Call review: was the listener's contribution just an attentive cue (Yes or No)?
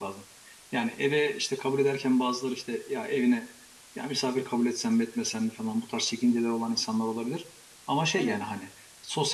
Yes